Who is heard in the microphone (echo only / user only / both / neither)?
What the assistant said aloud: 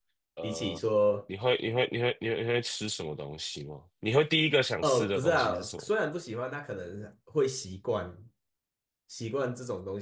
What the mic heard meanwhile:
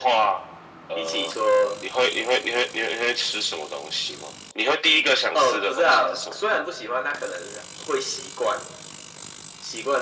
echo only